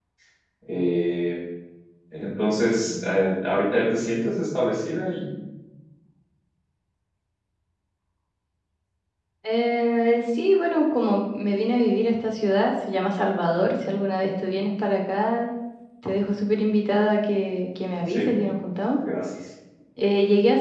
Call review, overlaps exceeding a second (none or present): none